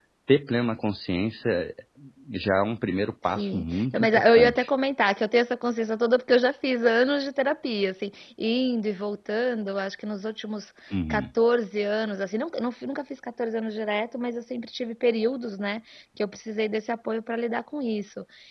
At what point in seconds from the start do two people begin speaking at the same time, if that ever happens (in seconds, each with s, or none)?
3.3 s